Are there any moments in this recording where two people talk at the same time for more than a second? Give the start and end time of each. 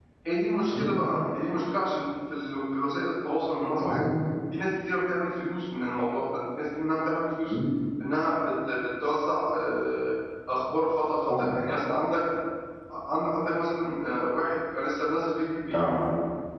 none

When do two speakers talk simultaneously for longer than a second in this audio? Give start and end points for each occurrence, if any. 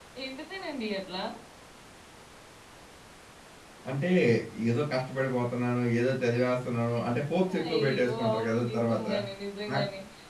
7.6-9.0

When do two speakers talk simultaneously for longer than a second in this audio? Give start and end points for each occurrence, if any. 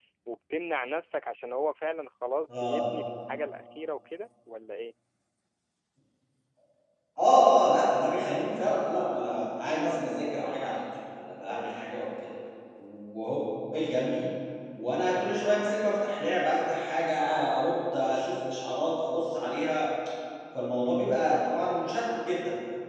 none

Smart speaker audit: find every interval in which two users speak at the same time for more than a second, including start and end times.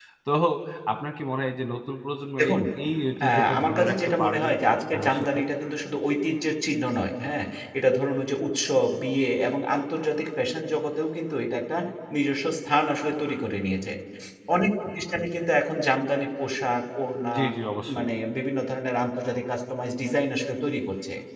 3.2-4.5

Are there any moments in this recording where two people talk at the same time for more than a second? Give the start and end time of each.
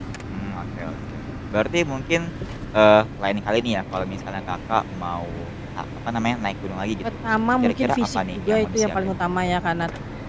7.6-8.9

